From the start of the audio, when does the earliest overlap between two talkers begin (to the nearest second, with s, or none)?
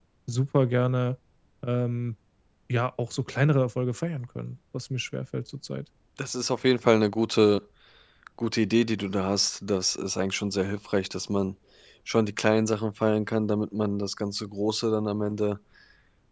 none